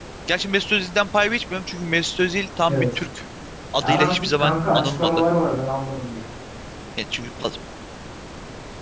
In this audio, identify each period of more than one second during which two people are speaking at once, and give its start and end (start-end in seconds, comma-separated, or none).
3.8-5.2